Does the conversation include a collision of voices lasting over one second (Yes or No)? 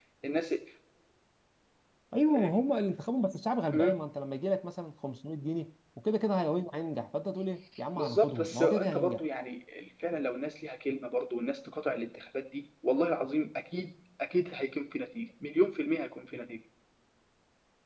Yes